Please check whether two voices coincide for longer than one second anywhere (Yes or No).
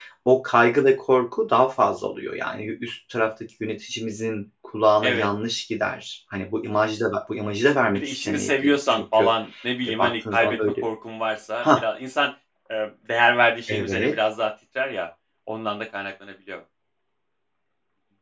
Yes